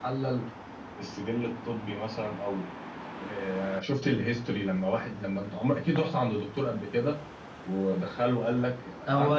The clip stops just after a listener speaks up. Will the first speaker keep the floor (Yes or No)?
No